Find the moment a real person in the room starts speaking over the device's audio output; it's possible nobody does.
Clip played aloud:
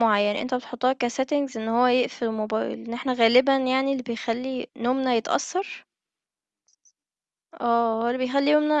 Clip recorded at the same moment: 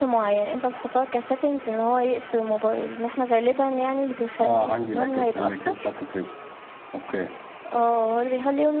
4.4 s

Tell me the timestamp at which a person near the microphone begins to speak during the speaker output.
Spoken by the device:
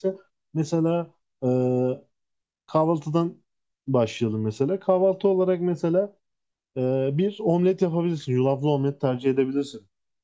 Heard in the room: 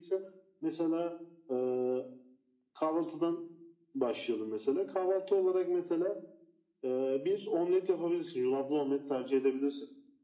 none

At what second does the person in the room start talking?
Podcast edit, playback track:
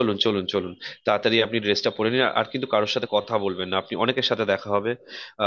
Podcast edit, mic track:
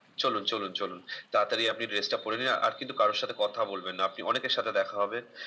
none

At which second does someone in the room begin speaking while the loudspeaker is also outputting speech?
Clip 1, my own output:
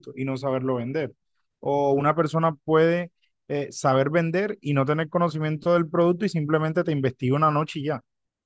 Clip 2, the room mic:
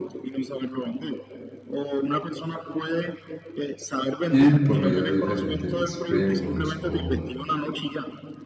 4.3 s

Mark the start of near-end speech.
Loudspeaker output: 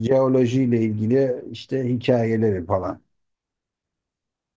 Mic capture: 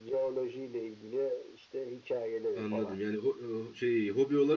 2.5 s

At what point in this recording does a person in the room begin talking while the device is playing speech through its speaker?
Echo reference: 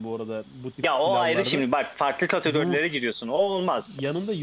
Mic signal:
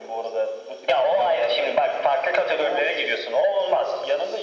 none

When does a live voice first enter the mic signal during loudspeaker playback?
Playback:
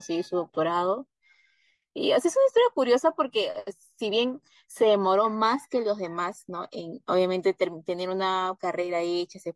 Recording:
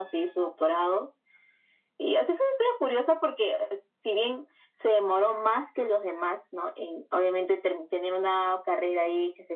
none

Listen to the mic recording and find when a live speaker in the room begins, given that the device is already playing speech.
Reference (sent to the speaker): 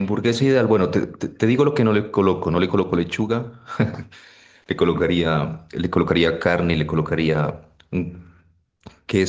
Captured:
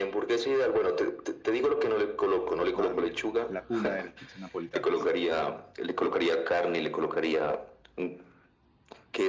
2.7 s

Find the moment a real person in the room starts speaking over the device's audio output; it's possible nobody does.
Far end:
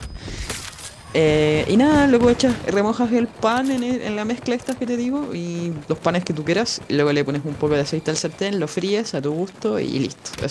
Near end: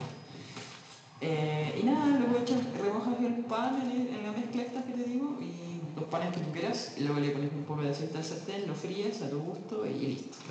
none

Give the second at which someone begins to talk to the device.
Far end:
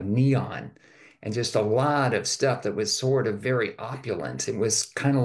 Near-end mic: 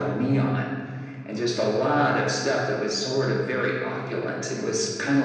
none

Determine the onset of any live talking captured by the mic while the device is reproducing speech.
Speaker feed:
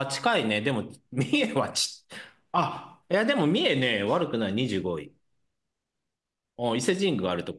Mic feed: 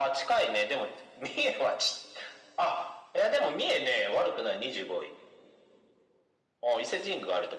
none

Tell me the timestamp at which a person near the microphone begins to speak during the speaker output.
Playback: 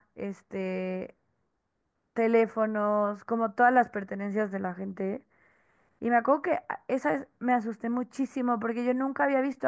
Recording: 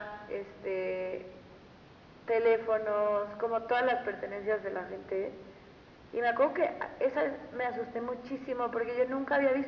none

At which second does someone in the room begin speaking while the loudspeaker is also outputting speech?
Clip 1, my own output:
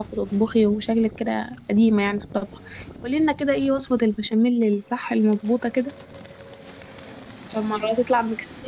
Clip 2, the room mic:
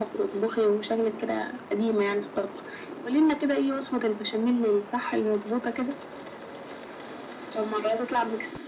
none

